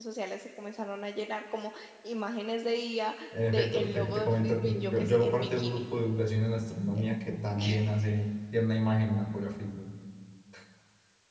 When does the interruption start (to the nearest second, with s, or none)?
3 s